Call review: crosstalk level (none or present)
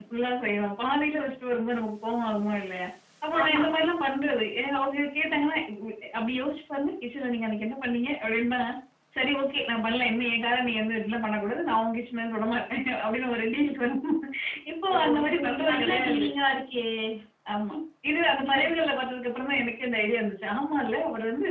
present